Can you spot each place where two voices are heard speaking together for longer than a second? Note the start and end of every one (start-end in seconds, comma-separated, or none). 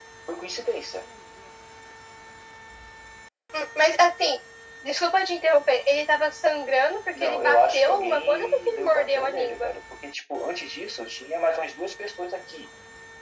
7.2-9.7